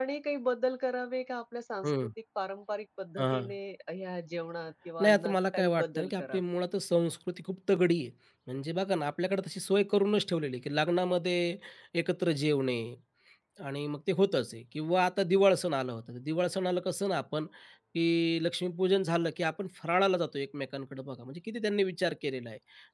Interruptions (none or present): present